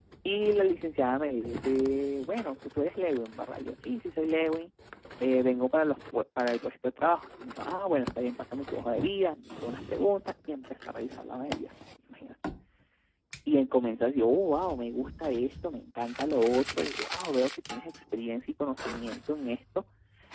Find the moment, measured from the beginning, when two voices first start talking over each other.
none

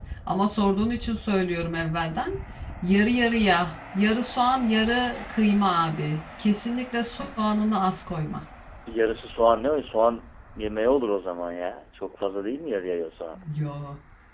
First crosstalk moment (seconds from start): none

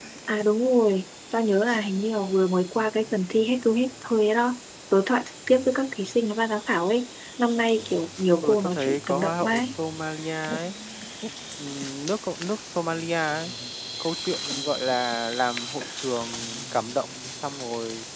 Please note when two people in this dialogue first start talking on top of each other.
8.4 s

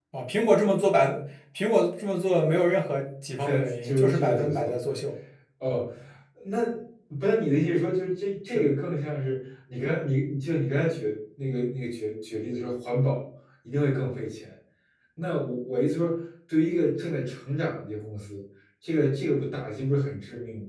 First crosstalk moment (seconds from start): 3.4 s

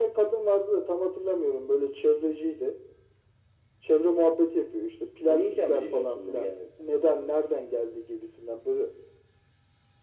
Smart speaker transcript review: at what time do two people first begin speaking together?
5.3 s

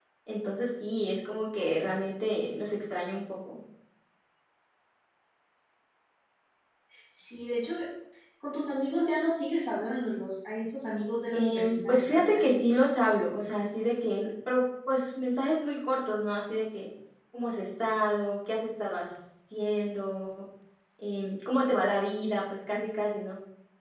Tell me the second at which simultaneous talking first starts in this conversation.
11.3 s

